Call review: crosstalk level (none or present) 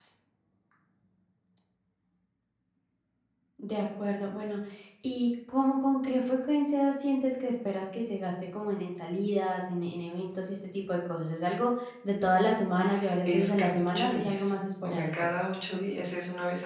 present